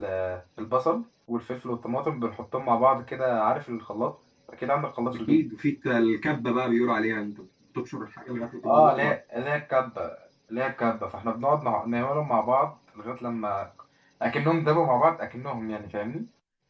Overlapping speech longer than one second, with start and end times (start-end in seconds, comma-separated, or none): none